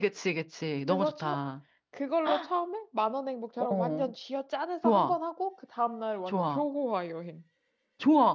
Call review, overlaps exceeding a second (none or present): none